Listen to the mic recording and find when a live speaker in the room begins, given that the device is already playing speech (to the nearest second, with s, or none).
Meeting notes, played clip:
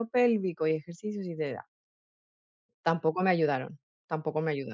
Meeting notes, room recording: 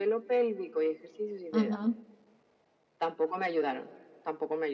2 s